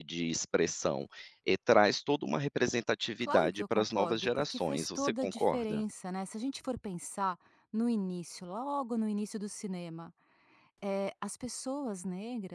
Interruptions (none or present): present